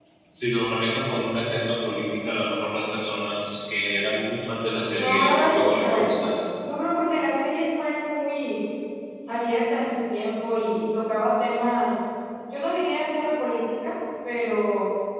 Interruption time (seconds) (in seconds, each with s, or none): 5.0 s